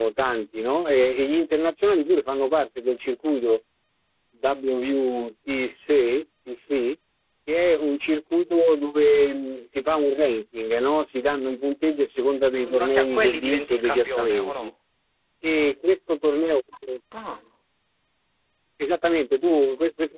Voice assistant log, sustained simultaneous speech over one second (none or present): present